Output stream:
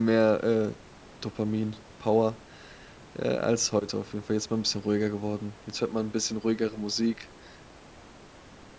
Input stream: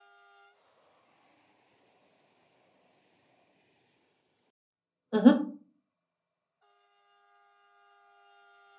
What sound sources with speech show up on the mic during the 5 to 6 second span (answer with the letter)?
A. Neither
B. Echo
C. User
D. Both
C